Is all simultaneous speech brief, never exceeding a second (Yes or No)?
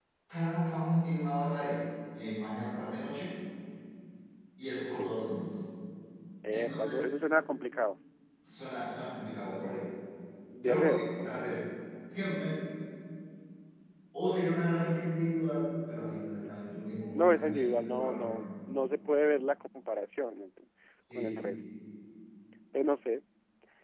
No